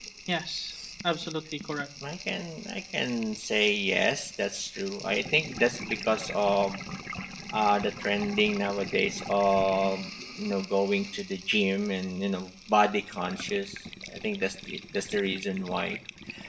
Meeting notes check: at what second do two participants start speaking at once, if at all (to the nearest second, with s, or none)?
none